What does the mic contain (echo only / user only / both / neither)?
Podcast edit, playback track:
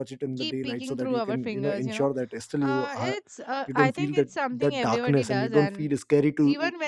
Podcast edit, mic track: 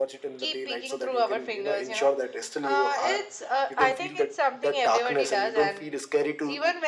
echo only